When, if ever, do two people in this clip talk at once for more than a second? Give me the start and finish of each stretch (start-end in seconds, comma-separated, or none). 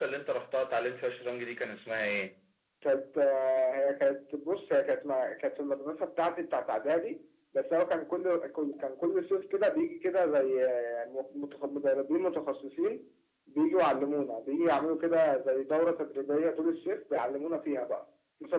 none